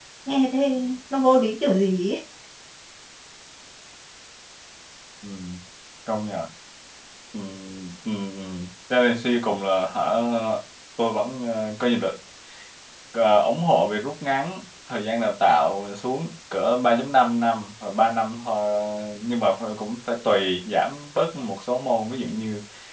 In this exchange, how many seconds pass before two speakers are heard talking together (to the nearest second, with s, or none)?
none